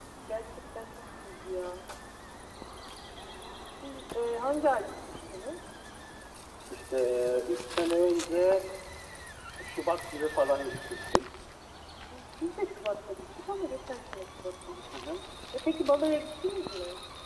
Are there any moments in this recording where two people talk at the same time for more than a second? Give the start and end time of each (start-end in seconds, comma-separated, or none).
none